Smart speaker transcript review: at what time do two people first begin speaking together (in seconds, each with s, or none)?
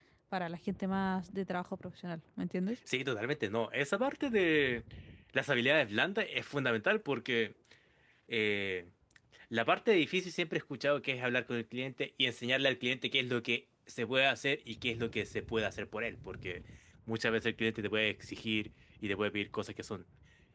none